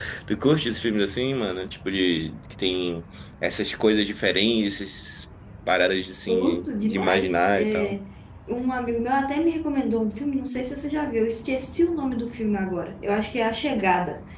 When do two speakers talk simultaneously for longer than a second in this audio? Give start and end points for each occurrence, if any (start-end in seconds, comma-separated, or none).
6.3-8.0